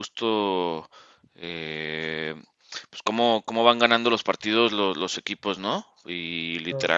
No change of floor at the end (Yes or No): Yes